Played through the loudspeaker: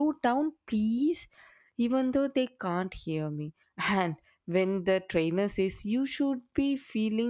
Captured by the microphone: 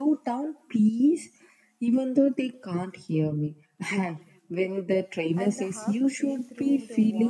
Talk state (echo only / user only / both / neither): both